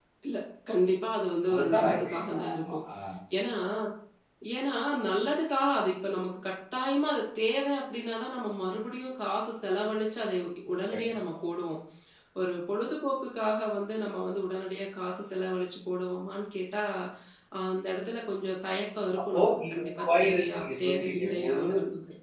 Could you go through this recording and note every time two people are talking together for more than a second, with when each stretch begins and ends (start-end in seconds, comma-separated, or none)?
1.5-2.7, 19.2-21.6